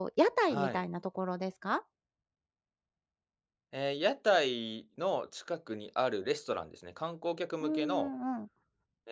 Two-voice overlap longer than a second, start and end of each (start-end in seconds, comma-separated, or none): none